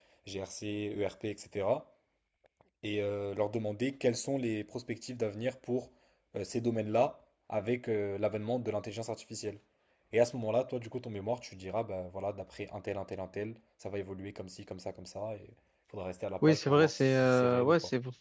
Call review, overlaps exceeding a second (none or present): present